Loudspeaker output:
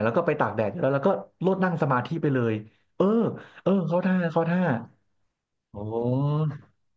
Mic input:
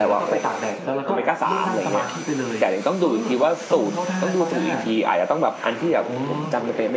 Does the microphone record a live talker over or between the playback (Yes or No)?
Yes